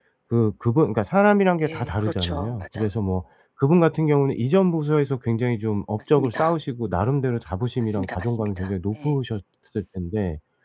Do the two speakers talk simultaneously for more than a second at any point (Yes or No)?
Yes